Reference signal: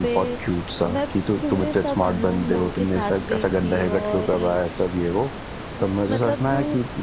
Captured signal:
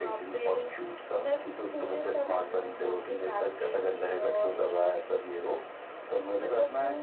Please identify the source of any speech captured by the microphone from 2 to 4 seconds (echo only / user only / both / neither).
echo only